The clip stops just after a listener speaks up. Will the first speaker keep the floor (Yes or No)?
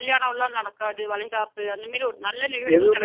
No